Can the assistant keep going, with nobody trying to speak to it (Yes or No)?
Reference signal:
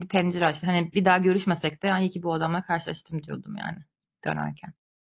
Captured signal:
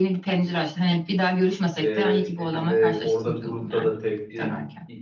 No